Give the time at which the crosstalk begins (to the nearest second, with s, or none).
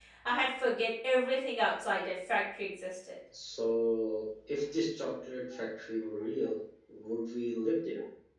none